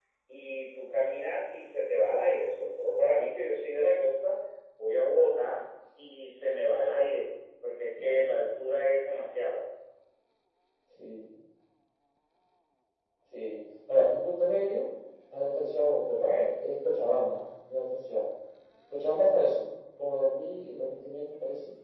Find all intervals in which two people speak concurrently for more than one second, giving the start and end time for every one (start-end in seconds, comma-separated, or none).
none